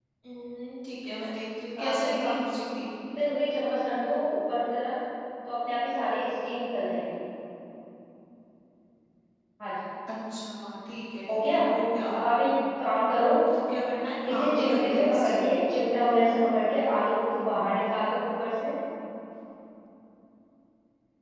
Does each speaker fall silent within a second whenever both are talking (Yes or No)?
No